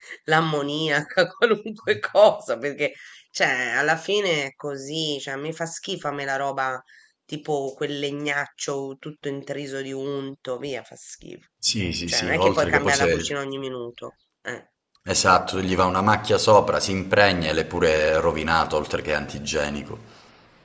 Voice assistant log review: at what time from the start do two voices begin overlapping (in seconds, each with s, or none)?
12.1 s